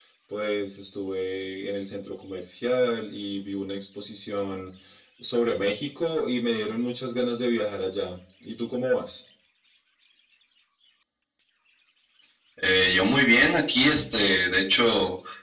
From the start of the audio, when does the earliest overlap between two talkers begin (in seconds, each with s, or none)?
none